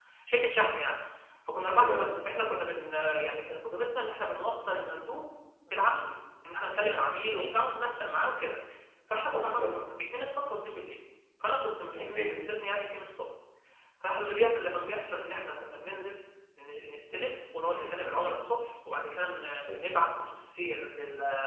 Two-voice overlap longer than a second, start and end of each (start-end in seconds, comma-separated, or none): none